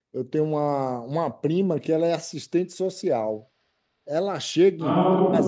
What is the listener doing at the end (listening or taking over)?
listening